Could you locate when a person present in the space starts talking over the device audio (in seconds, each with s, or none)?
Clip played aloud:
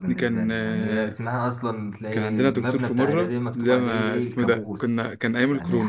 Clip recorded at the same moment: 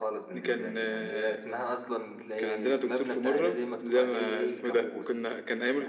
none